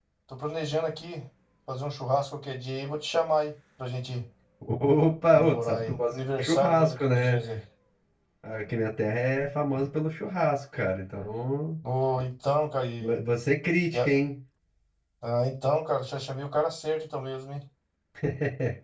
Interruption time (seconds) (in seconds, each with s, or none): 5.3 s